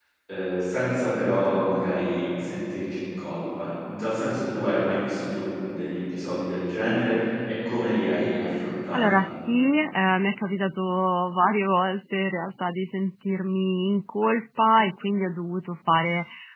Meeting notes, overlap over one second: none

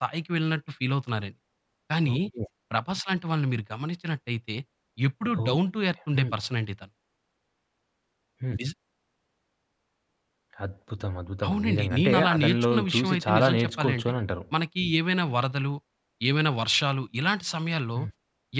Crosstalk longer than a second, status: present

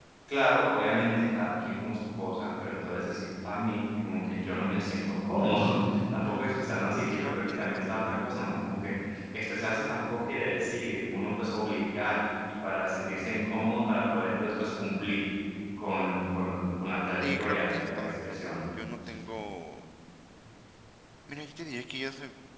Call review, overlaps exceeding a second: present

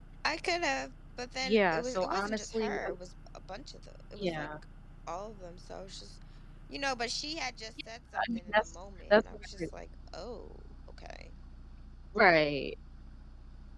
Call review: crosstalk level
present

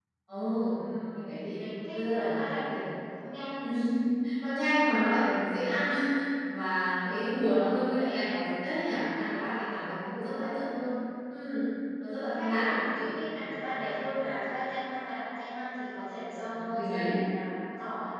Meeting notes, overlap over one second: present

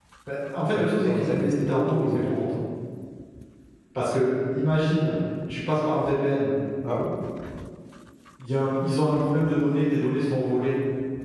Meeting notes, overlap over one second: present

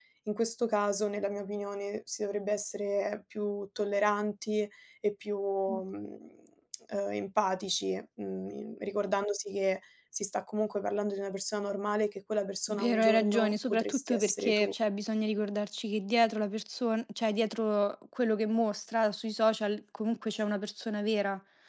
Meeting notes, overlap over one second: present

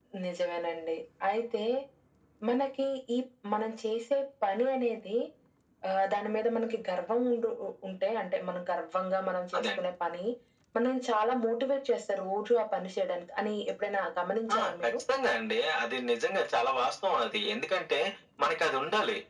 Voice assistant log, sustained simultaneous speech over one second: none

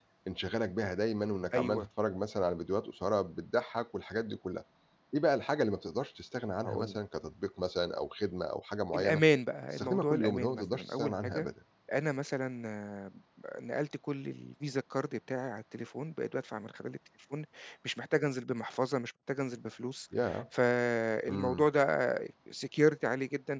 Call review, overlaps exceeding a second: present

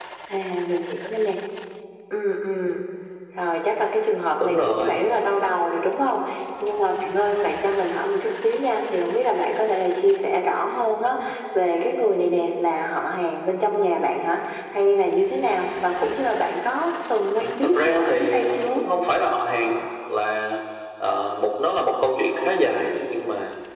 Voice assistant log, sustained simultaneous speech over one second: present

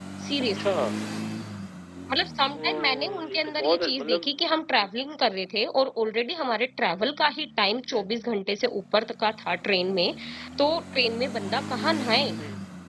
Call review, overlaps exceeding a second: present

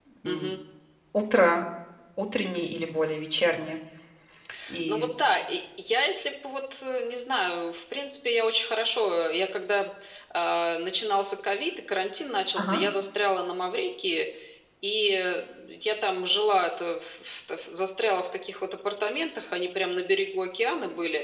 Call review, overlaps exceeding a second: none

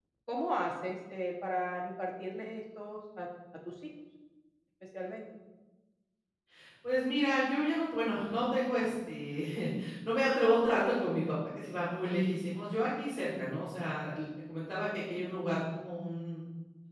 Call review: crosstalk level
none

